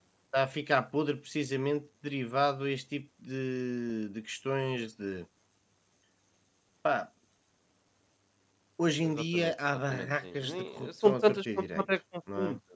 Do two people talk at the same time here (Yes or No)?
Yes